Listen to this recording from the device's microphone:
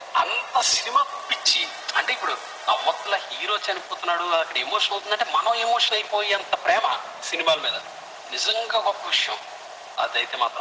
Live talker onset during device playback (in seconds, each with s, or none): none